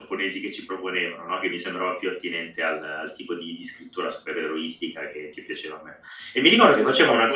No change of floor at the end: No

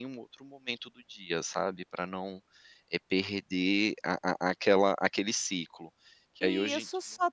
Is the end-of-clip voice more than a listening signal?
Yes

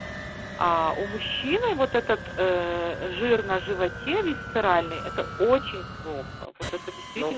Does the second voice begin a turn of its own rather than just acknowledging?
Yes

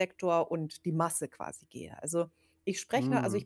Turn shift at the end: No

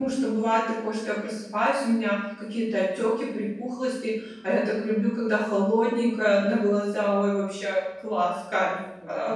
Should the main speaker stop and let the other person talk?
Yes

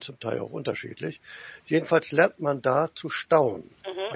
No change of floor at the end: No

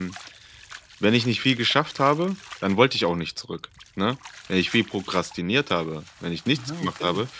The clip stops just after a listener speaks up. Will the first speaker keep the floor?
Yes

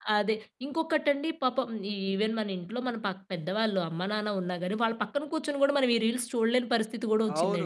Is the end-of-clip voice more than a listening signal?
Yes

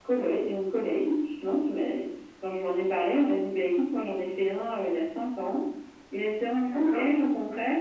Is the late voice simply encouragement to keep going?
Yes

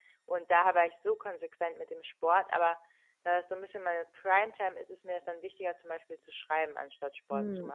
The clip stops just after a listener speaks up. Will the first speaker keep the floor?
No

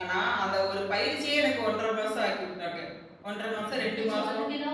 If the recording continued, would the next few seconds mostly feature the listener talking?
Yes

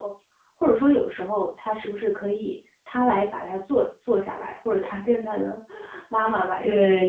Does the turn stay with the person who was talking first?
No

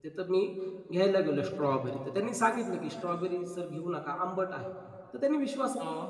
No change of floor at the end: Yes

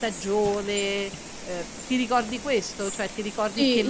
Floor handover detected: Yes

